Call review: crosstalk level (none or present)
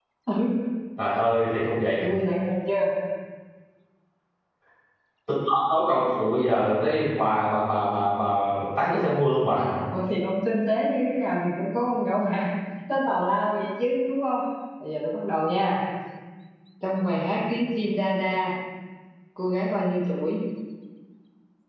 none